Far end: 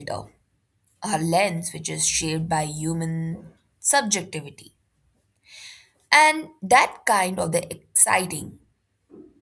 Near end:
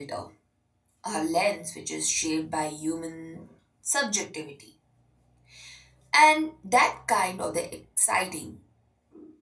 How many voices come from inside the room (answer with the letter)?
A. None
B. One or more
A